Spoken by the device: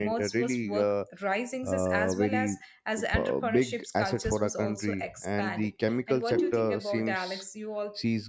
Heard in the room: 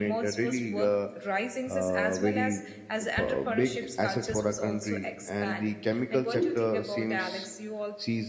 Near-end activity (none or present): none